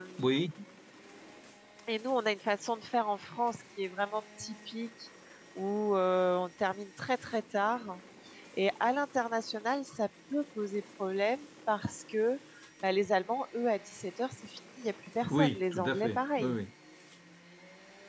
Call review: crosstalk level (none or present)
present